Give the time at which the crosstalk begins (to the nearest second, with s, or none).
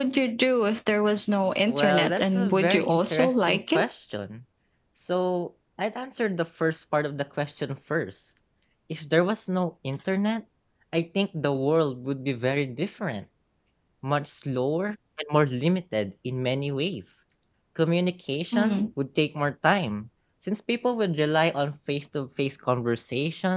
2 s